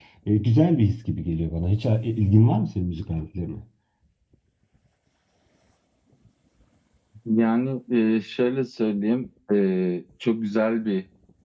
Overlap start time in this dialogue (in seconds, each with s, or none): none